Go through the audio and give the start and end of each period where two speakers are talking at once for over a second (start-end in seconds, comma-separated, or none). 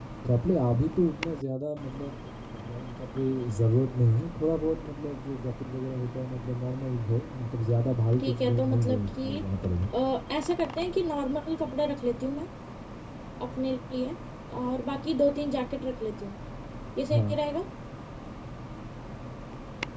8.2-9.4